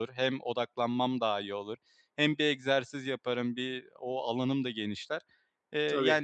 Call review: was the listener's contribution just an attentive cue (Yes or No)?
Yes